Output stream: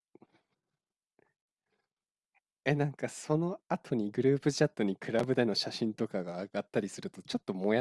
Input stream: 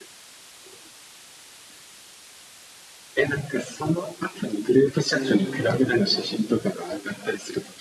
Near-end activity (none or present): present